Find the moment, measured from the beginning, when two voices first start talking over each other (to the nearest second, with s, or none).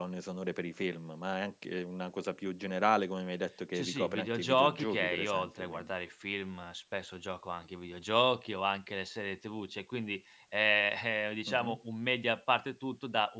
4 s